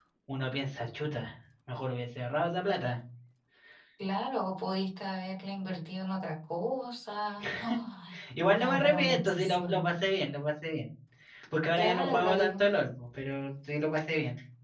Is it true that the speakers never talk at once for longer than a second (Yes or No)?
No